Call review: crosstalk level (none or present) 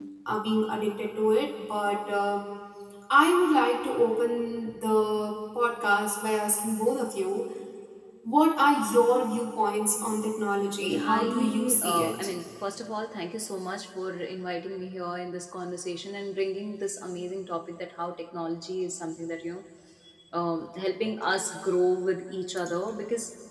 present